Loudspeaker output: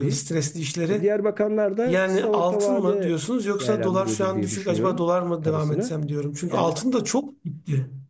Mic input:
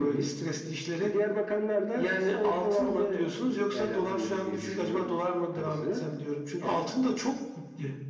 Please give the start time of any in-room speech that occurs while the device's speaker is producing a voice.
none

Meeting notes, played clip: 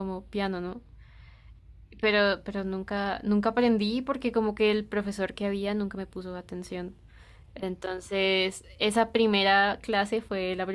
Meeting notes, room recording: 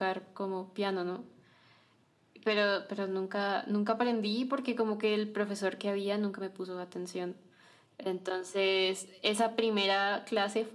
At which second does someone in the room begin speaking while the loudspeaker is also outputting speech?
none

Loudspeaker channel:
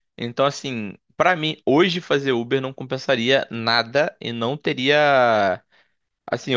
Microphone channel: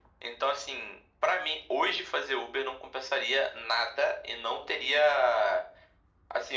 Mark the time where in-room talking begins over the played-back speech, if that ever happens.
none

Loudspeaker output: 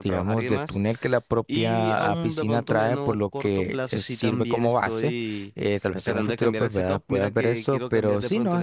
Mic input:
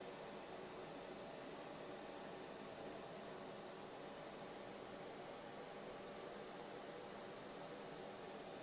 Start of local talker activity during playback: none

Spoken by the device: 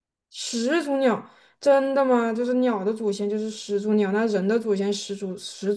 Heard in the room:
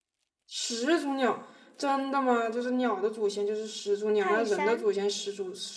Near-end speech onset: 4.2 s

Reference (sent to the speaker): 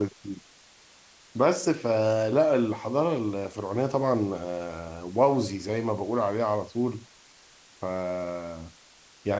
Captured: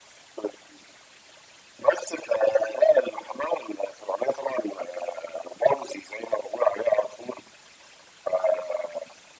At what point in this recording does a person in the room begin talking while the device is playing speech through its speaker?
none

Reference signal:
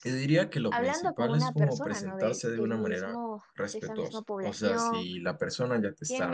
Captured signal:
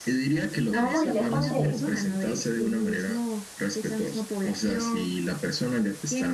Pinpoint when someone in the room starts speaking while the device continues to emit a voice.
0.7 s

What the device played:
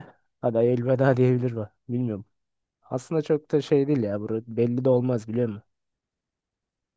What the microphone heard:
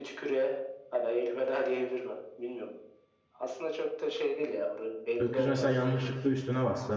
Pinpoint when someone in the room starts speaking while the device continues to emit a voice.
5.2 s

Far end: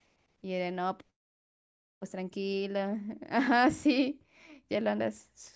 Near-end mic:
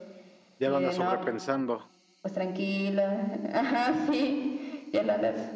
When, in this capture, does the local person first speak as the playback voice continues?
0.6 s

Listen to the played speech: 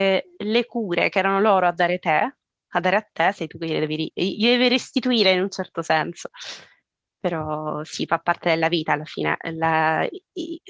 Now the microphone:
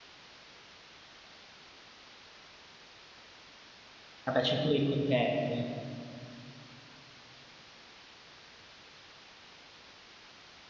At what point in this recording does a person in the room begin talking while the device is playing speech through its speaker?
4.2 s

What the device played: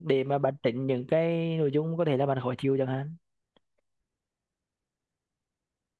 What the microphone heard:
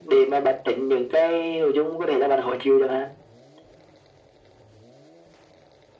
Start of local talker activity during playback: none

